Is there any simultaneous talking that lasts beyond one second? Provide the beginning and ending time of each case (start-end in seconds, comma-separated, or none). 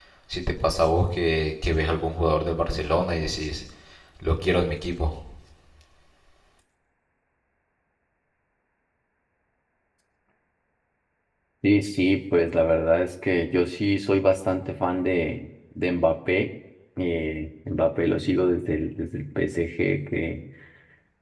none